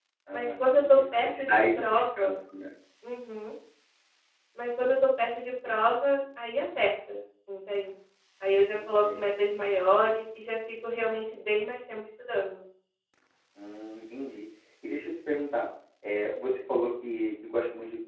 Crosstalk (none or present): present